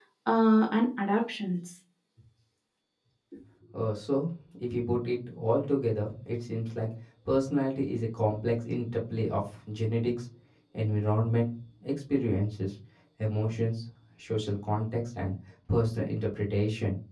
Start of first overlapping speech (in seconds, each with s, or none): none